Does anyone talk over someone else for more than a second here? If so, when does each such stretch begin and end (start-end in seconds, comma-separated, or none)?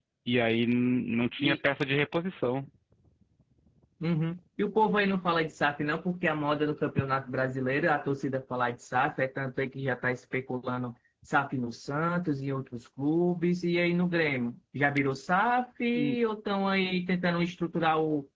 none